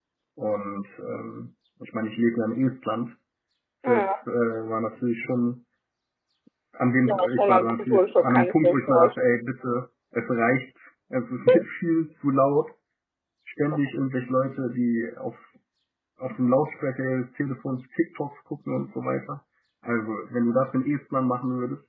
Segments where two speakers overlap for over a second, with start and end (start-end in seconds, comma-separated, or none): 7.1-9.2